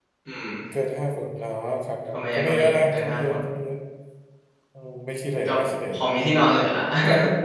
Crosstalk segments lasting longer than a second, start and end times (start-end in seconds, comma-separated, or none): 2.1-3.4